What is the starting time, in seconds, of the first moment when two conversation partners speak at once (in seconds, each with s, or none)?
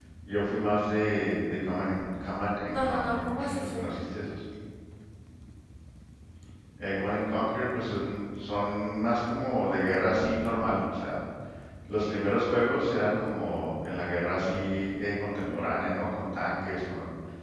2.6 s